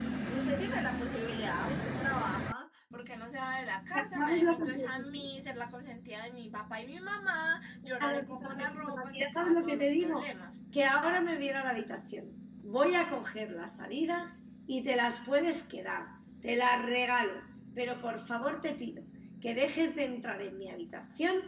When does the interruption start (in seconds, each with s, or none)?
3.9 s